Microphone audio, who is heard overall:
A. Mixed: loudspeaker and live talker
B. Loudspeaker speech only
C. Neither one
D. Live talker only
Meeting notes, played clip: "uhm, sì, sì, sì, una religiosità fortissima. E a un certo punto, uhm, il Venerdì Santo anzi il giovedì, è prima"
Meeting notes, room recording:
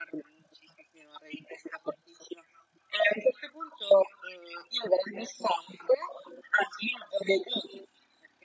B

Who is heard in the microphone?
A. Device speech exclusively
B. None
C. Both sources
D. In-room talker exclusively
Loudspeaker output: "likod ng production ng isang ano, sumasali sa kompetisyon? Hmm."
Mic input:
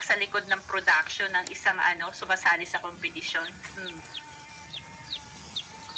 A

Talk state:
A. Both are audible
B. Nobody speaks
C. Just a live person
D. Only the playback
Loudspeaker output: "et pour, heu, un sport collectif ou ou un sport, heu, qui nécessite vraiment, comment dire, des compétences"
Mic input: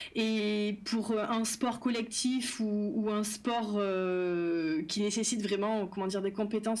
D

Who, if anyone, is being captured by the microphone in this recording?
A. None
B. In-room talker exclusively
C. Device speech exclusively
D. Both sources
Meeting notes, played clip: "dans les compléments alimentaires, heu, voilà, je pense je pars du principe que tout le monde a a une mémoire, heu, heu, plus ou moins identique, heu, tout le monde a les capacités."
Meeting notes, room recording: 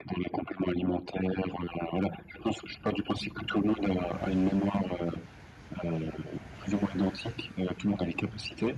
C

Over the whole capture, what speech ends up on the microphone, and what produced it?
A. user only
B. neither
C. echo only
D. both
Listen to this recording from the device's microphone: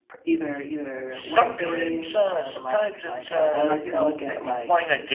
D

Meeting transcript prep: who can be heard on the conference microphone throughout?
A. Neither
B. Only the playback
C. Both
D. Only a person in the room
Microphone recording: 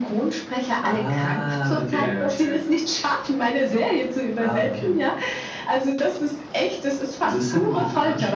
B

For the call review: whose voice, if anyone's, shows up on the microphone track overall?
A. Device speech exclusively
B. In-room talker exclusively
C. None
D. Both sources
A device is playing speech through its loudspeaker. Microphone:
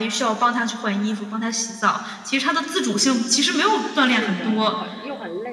D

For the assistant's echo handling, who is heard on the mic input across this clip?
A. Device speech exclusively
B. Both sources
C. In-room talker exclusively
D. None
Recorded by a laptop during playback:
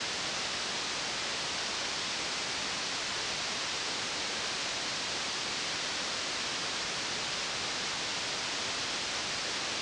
D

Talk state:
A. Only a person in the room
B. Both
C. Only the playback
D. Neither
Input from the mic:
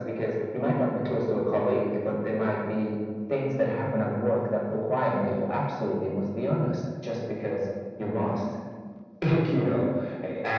C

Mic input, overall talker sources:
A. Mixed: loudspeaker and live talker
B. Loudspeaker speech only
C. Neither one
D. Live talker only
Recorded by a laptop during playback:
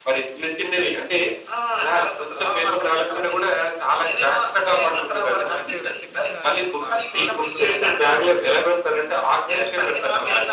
A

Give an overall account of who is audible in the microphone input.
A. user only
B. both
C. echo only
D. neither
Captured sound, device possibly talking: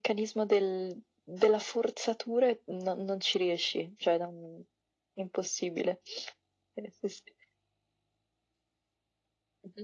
C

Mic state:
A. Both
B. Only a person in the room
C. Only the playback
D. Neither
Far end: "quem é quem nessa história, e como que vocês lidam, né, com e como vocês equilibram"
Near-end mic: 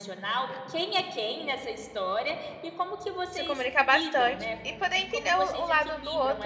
A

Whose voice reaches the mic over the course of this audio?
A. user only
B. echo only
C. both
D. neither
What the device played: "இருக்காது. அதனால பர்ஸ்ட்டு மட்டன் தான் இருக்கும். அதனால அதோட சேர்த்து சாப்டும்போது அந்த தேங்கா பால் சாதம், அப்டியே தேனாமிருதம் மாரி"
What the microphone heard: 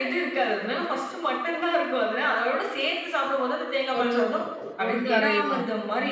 C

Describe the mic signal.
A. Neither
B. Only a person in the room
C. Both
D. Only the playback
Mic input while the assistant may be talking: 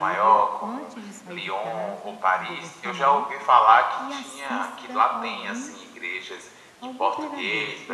C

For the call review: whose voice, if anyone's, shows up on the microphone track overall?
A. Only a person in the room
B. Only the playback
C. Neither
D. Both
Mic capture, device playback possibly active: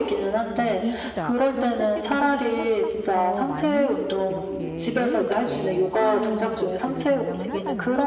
D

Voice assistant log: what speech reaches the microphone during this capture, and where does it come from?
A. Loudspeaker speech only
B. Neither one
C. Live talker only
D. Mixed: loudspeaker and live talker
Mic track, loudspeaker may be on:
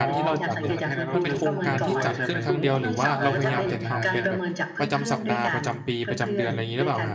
D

